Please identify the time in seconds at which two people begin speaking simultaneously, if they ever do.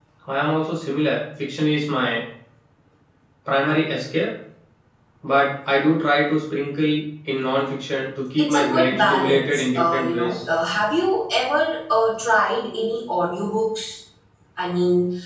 8.4 s

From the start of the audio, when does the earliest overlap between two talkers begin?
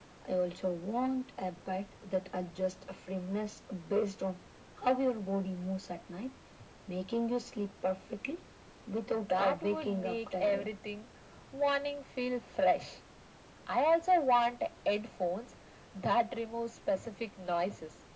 9.3 s

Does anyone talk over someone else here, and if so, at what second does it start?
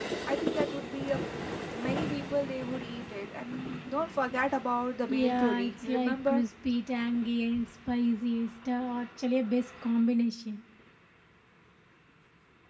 5.1 s

